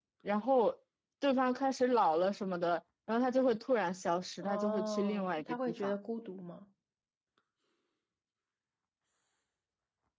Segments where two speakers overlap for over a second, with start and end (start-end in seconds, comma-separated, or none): 4.4-6.0